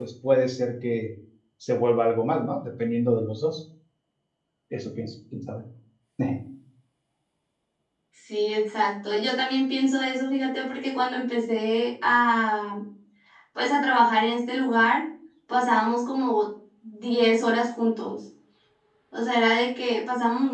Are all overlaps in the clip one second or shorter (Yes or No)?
Yes